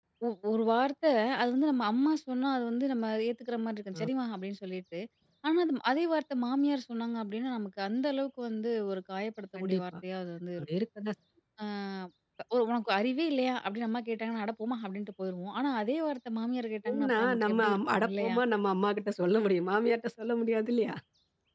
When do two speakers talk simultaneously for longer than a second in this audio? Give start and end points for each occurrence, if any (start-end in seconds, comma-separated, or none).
16.9-18.4